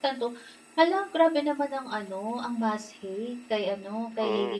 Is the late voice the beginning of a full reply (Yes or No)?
Yes